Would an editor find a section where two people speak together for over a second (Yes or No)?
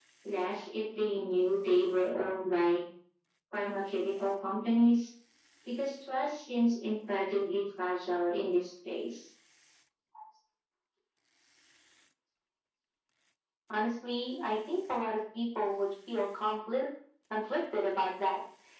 No